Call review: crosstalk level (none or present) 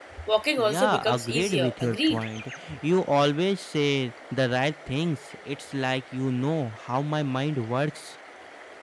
present